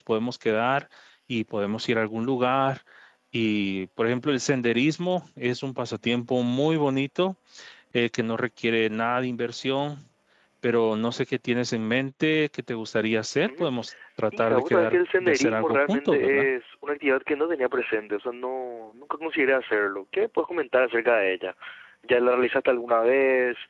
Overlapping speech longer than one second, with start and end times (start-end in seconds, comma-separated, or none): 14.4-16.5